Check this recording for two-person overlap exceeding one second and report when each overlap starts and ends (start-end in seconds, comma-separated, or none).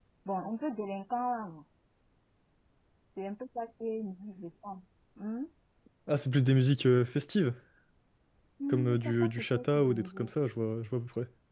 8.7-10.3